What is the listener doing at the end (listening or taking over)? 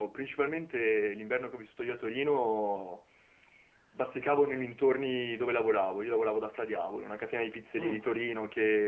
listening